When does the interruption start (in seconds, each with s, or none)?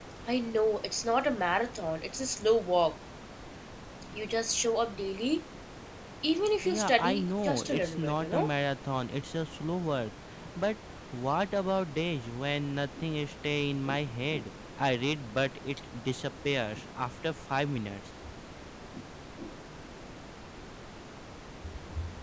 6.6 s